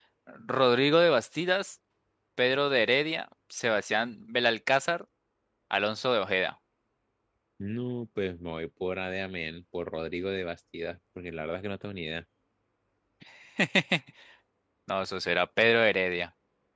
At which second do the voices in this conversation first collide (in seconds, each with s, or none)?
none